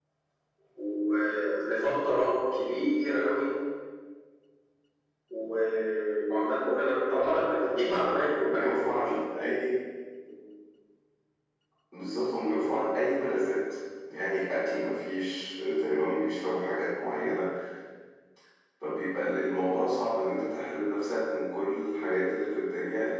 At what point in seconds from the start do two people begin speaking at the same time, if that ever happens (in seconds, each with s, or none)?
7.5 s